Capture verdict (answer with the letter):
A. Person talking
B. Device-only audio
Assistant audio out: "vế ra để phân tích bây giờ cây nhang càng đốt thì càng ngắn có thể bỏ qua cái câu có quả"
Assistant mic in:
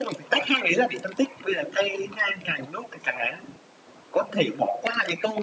B